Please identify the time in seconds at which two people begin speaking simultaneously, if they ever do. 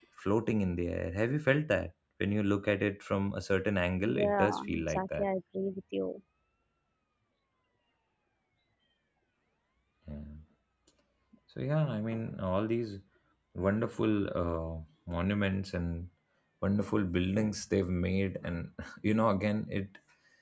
4 s

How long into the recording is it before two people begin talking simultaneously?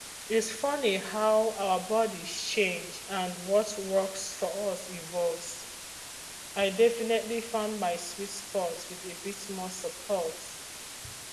none

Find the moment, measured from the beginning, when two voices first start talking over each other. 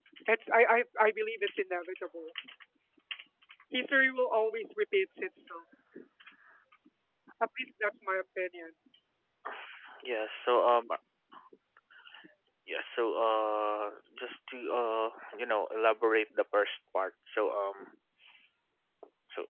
none

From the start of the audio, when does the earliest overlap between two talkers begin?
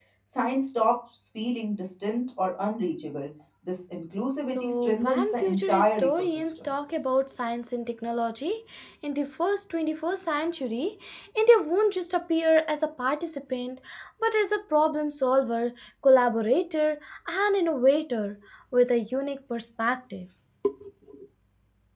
5 s

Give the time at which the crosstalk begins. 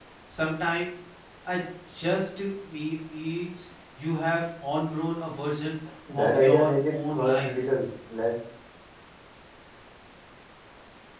6 s

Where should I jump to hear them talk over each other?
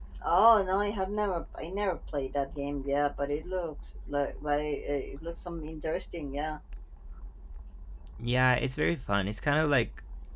none

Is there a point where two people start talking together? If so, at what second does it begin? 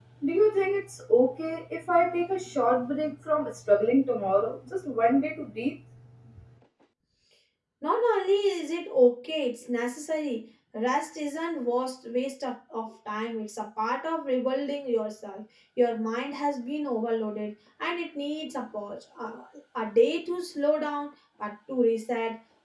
none

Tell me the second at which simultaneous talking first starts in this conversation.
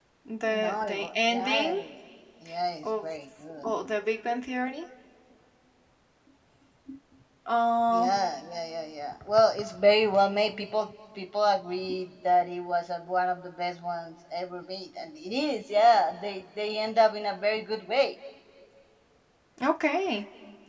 1 s

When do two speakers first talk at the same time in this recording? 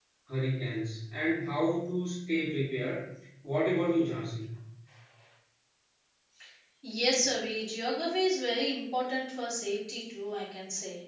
none

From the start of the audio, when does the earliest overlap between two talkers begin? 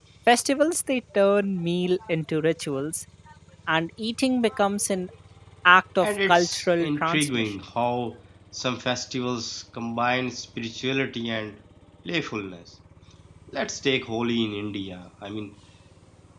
6 s

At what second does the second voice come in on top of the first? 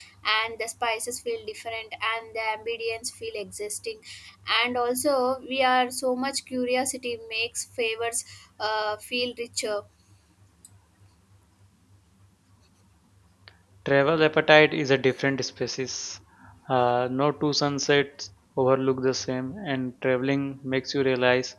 none

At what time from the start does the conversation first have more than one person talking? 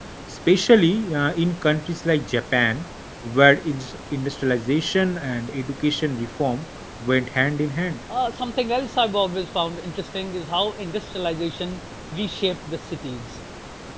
none

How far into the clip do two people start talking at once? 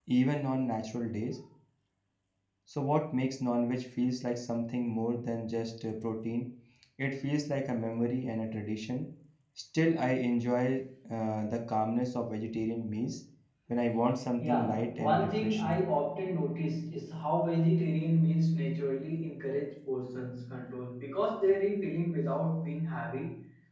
14 s

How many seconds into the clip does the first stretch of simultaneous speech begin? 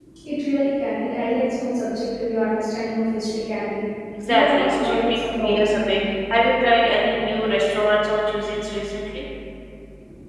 4 s

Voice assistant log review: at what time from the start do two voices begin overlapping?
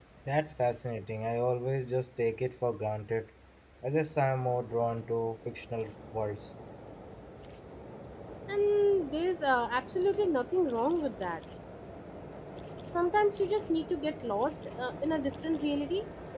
none

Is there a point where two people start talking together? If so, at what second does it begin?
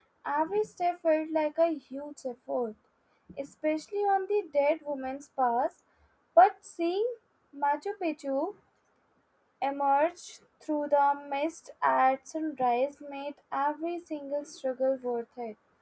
none

